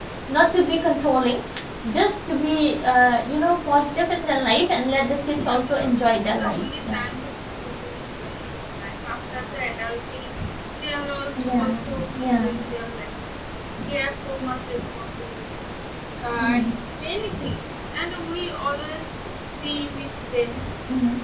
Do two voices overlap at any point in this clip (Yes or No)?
Yes